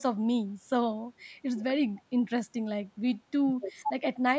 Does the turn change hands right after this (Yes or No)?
No